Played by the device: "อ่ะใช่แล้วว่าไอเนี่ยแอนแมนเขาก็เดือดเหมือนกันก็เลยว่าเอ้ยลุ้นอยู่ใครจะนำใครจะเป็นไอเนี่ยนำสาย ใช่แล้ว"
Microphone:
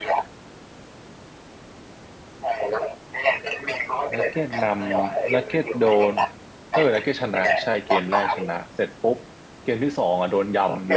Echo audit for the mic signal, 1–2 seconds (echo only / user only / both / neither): neither